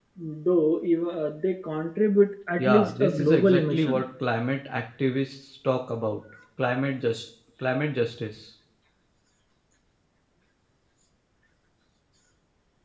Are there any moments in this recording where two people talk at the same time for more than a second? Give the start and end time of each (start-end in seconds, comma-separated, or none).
2.6-4.0